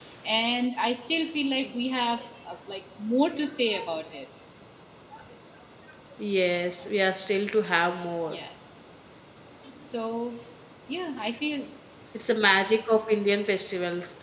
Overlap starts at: none

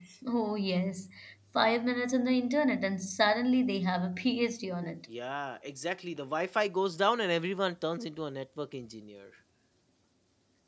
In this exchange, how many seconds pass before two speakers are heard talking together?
none

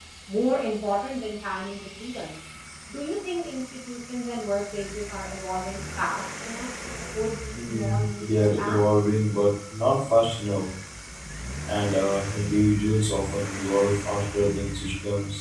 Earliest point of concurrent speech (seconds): 7.5 s

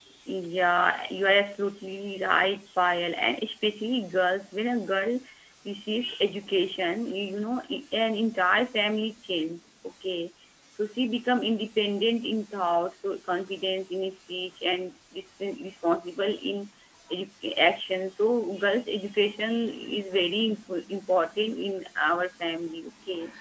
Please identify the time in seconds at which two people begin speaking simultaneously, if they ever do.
none

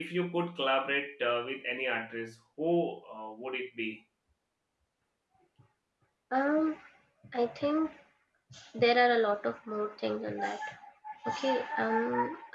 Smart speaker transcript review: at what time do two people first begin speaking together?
none

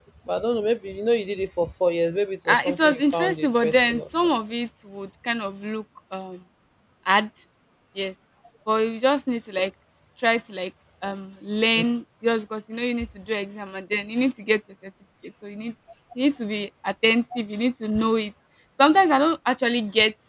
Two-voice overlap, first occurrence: 2.5 s

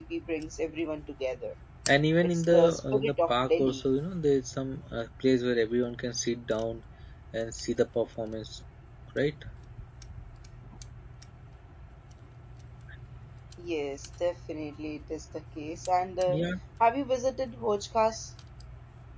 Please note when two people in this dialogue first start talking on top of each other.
2.2 s

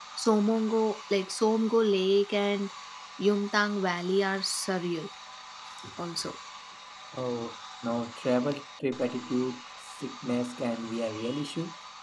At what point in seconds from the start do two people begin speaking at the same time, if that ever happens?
none

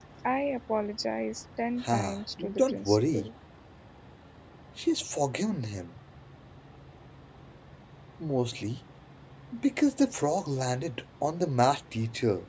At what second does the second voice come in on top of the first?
1.8 s

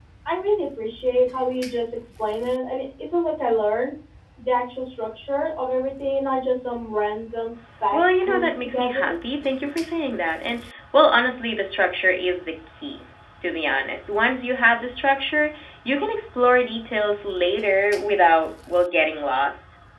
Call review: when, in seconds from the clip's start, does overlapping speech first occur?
7.9 s

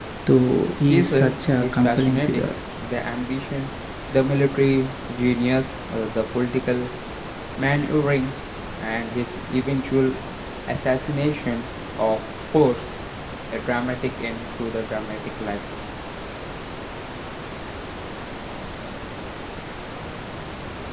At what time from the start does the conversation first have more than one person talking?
0.9 s

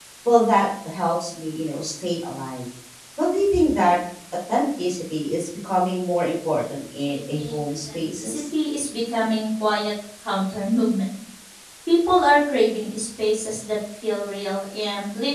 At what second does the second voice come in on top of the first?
7.1 s

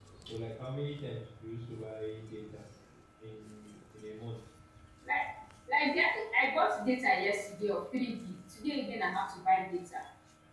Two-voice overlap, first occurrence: none

